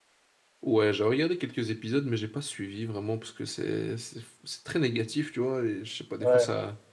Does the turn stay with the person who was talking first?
Yes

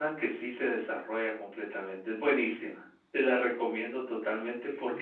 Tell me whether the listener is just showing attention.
No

